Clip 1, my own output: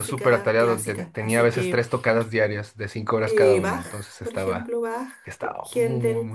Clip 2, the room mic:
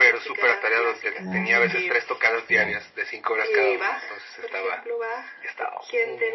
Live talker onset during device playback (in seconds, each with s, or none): 1.3 s